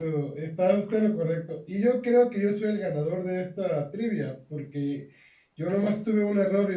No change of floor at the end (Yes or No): Yes